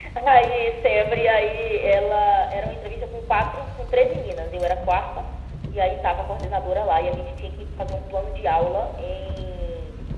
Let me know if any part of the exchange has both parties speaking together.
No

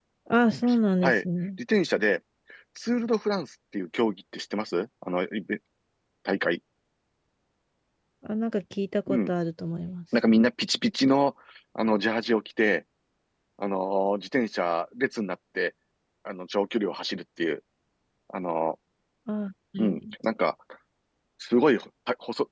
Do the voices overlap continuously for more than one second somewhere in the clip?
No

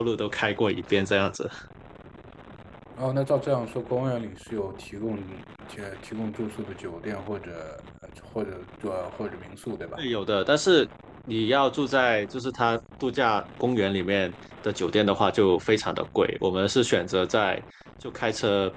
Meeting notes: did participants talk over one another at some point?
No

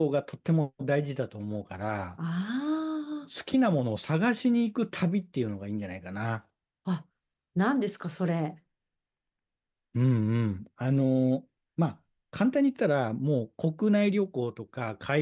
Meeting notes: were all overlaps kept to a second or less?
Yes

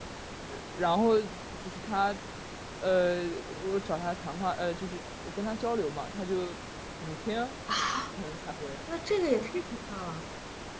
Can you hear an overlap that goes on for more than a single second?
No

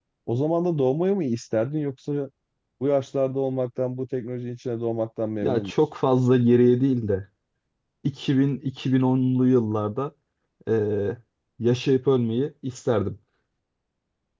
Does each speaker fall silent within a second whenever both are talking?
Yes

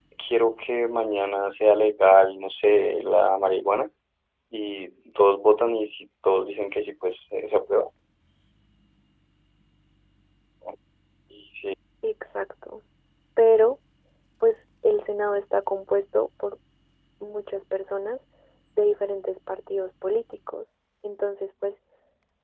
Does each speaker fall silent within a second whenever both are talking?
Yes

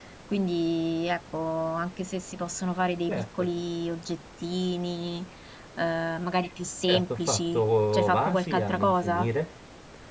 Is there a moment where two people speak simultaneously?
Yes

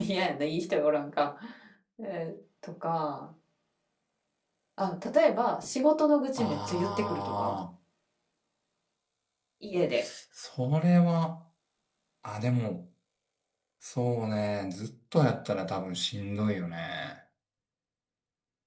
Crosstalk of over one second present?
Yes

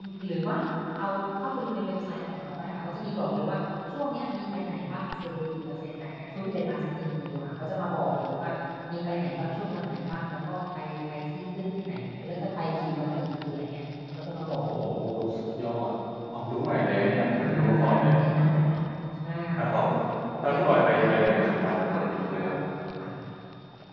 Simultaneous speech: Yes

